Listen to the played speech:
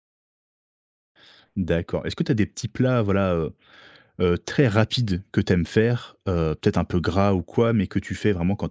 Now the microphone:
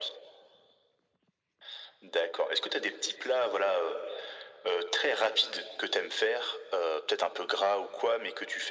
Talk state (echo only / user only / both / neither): echo only